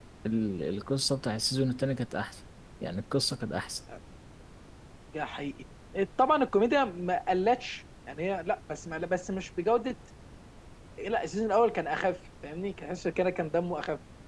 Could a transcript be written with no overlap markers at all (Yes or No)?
Yes